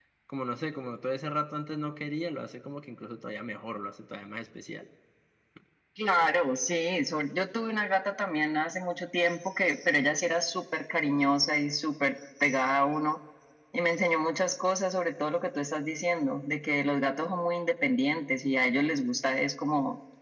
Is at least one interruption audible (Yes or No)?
No